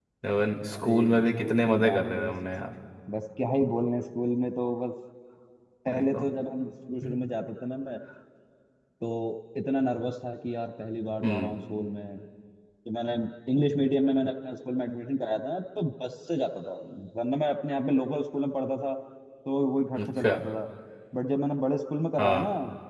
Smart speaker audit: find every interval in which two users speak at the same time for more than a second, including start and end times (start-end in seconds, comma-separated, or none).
0.7-2.1